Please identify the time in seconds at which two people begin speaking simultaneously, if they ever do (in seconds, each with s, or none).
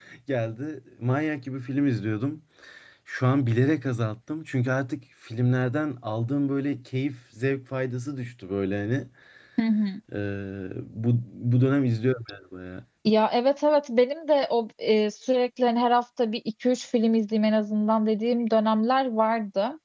none